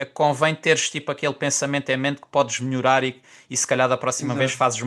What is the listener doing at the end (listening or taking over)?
listening